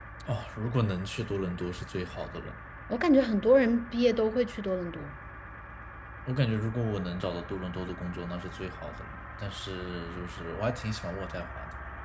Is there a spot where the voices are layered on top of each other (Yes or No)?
No